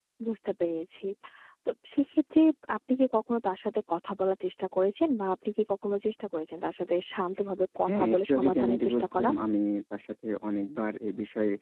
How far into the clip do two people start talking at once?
7.9 s

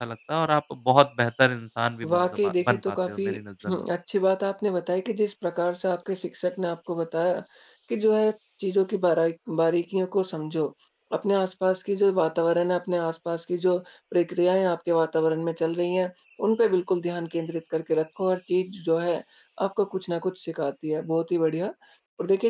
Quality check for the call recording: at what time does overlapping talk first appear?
2.0 s

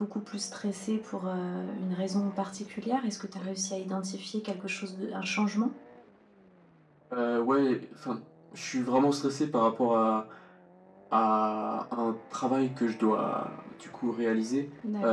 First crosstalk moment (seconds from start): none

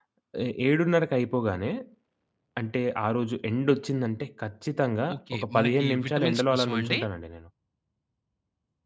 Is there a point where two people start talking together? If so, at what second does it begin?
5.1 s

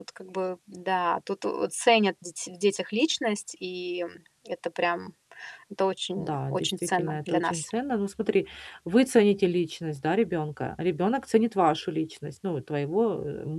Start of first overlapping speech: 6.2 s

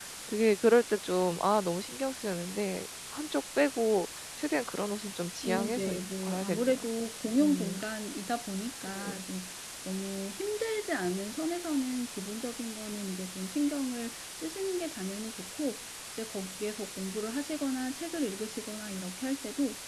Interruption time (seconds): 5.4 s

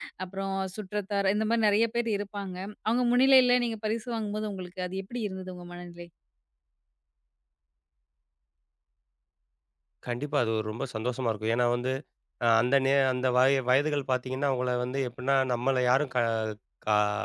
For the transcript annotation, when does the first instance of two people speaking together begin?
none

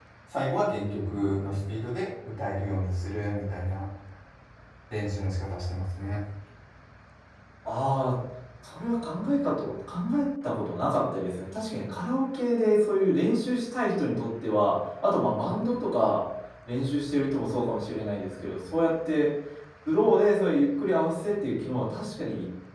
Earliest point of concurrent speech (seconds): none

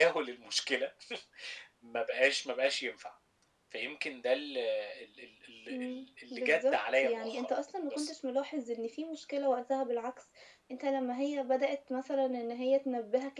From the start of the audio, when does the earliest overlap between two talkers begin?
5.7 s

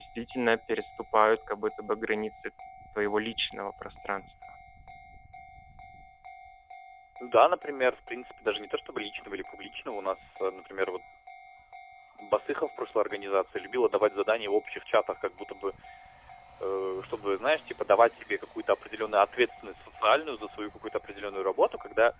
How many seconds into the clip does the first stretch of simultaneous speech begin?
none

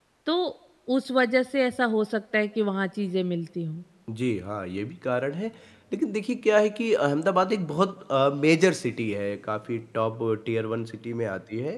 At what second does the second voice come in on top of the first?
none

